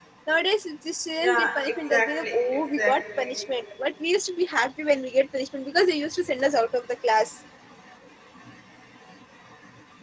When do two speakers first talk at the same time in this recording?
1.2 s

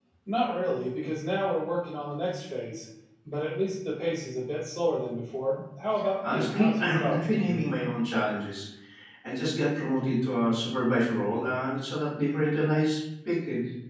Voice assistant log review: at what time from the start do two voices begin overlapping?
6.2 s

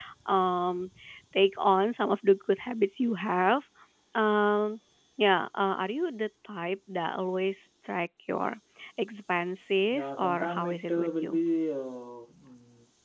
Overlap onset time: 9.9 s

